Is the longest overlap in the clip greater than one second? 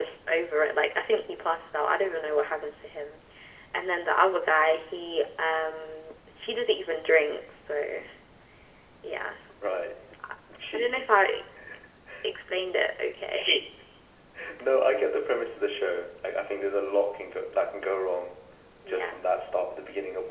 No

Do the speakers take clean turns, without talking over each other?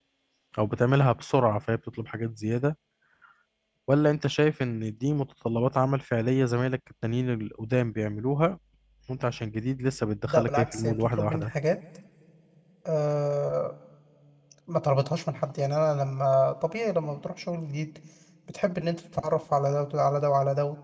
No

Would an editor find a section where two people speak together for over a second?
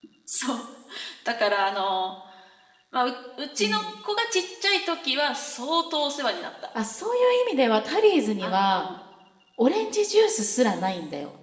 No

